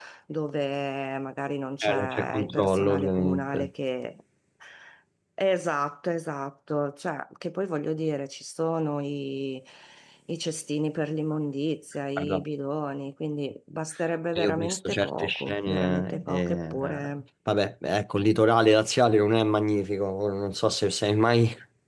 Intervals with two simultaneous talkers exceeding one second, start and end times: 1.8-3.7, 14.3-17.1

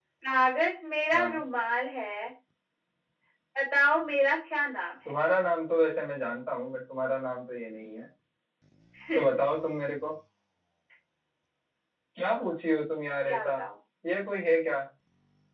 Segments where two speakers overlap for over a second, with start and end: none

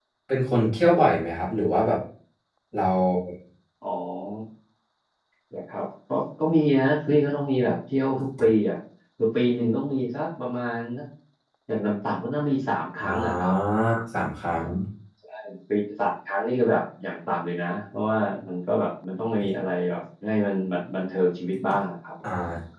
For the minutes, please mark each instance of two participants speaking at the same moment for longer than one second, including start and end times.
none

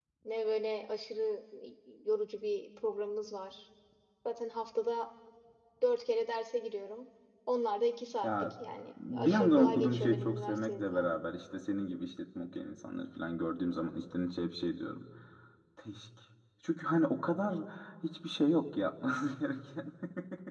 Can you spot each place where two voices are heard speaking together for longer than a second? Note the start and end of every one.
9.1-11.1

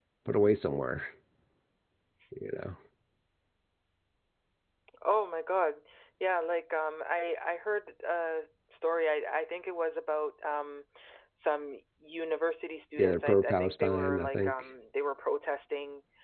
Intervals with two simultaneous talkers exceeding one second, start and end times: 13.0-14.5

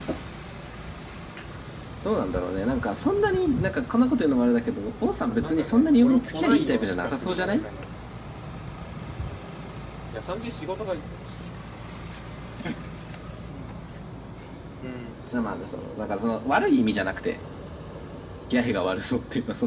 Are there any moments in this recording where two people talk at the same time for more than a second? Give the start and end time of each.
5.4-7.6

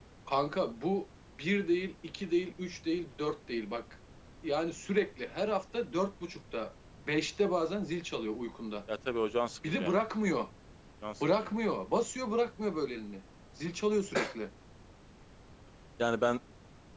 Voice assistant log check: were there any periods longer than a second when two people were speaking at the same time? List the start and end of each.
none

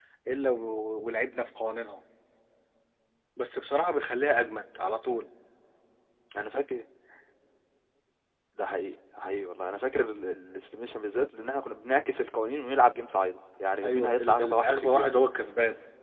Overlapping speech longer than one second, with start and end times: 13.8-15.2

